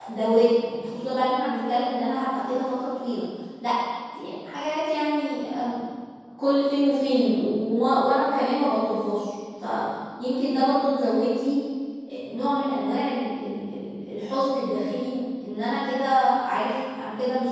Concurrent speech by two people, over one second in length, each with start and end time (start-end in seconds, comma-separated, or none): none